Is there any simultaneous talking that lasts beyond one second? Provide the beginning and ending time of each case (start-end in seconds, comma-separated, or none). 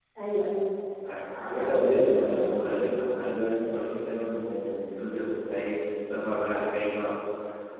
1.5-2.9